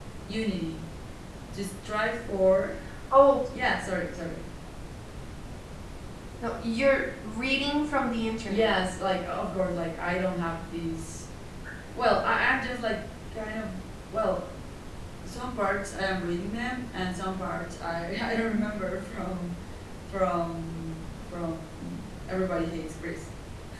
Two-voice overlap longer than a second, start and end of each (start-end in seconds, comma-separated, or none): none